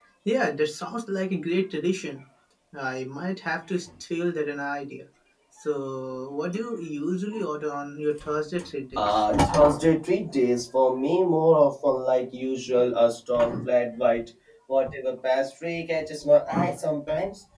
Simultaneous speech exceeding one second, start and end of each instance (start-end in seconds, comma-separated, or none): none